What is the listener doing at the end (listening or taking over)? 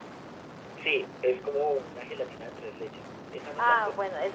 taking over